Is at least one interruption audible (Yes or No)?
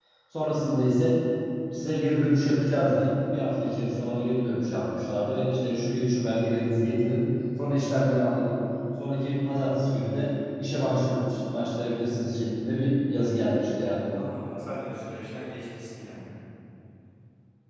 No